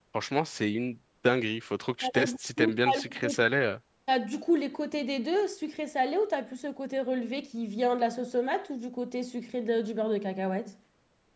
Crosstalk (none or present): present